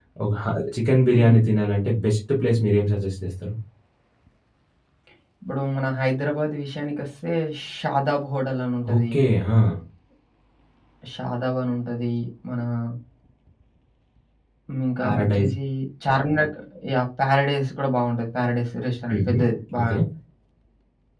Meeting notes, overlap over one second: none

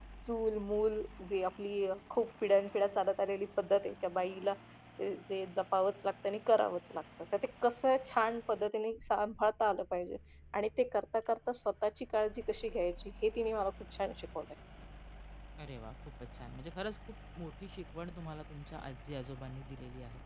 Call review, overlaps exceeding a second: none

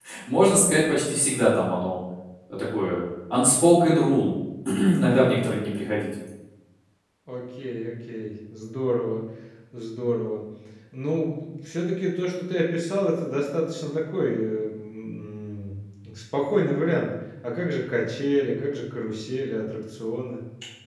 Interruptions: none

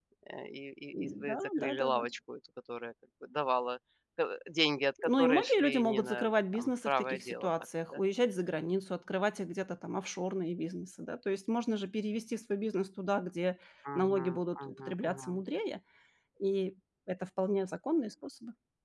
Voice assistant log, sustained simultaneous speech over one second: present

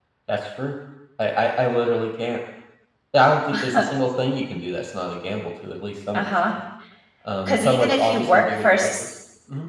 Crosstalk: present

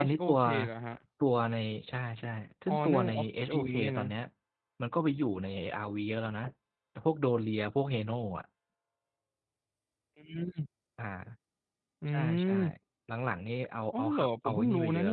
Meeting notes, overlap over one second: present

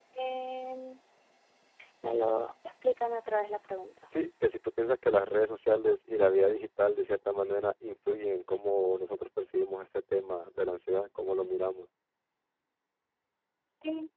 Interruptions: none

